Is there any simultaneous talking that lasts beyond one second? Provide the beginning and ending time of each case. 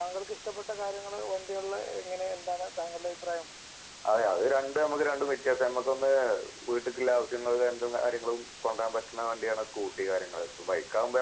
none

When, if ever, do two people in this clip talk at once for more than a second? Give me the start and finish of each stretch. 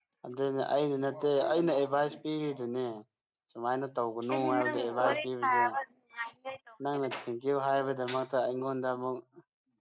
4.3-5.6

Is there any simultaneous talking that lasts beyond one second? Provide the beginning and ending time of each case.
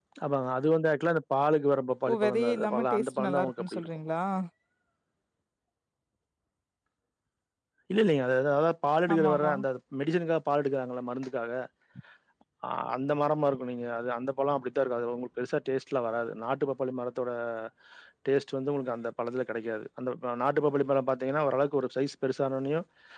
2.1-3.9

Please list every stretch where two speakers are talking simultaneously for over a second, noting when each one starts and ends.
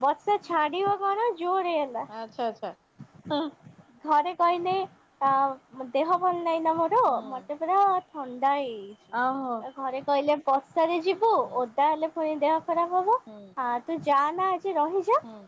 none

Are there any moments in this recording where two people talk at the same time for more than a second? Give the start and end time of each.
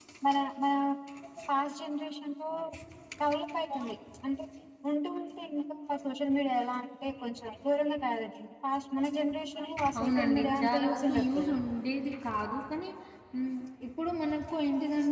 10.0-11.6

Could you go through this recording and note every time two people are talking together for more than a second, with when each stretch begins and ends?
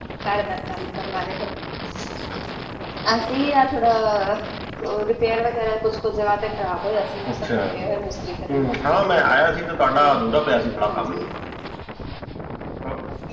none

